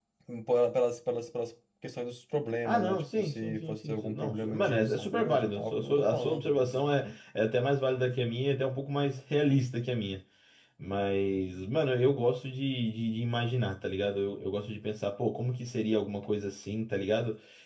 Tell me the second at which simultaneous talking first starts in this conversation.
2.6 s

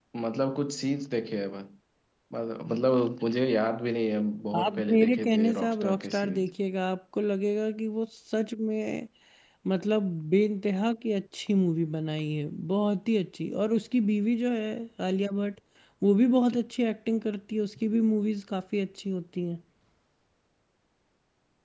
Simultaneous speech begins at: 4.5 s

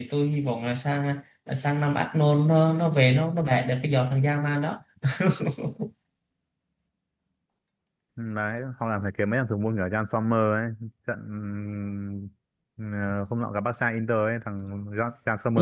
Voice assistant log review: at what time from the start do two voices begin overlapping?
none

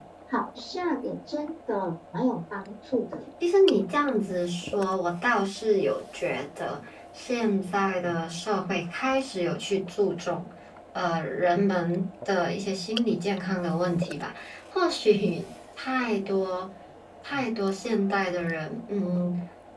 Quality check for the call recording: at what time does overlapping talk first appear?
none

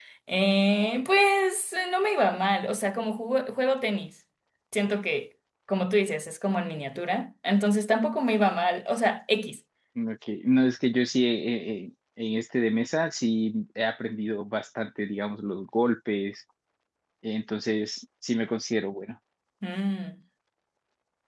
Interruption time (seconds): none

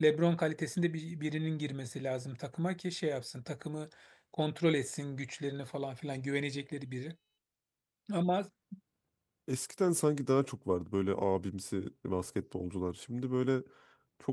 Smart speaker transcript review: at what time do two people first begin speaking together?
none

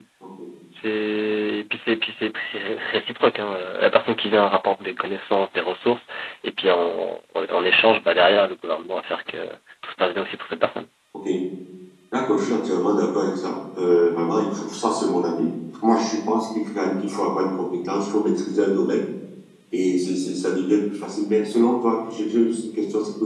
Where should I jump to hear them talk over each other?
none

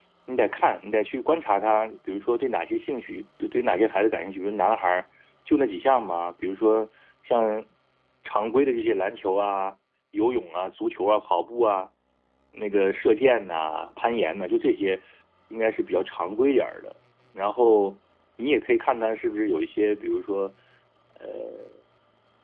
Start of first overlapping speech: none

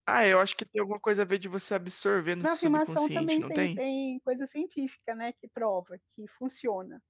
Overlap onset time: 2.4 s

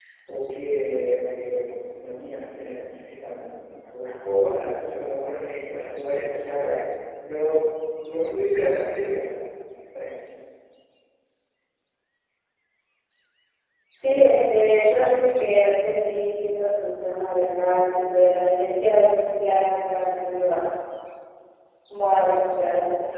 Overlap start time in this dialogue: none

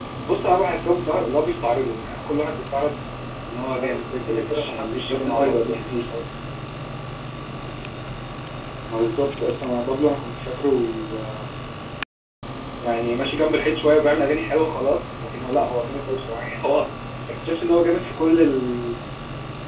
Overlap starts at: 3.8 s

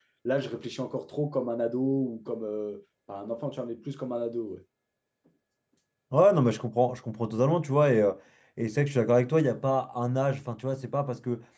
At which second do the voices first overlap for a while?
none

